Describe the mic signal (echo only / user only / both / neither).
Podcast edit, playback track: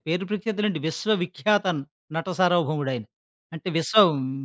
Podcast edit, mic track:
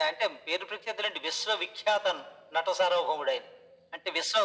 echo only